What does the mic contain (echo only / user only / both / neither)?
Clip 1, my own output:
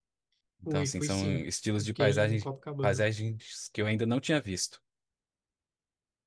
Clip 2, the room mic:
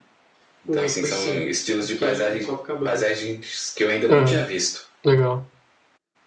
both